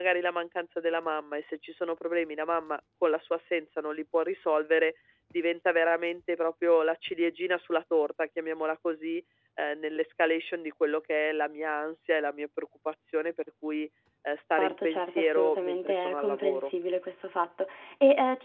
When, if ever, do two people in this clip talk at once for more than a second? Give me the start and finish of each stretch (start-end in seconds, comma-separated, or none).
14.6-16.7